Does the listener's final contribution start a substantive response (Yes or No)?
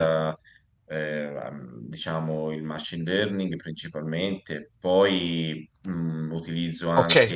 Yes